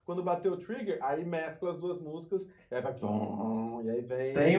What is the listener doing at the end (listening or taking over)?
taking over